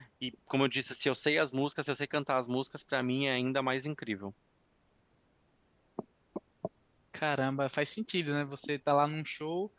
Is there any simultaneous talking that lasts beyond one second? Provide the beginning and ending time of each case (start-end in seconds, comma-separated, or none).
none